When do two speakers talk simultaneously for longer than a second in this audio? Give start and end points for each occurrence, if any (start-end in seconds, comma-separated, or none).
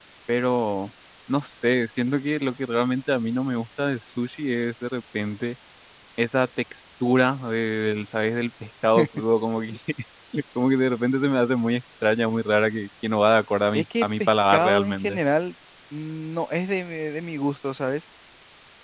13.7-15.2